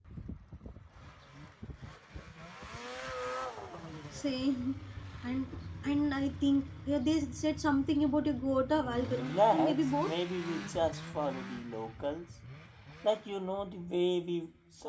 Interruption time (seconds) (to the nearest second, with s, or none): 9 s